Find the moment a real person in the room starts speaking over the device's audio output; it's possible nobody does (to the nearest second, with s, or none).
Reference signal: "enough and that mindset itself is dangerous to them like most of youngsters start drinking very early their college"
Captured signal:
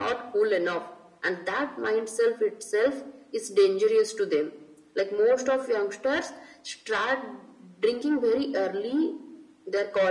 none